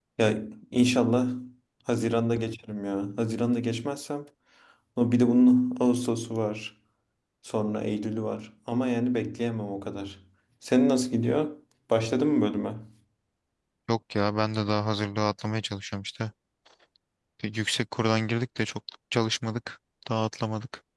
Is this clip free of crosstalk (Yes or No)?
Yes